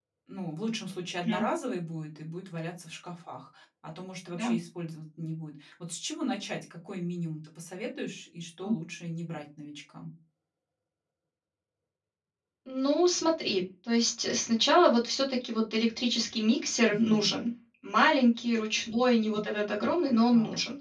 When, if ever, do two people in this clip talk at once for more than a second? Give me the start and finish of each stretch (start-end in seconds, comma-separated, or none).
none